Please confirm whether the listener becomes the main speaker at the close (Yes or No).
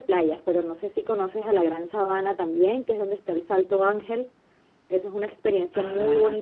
Yes